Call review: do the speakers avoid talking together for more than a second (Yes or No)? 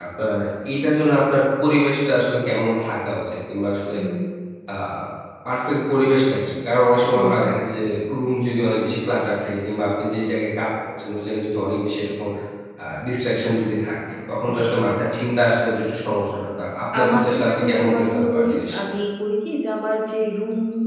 No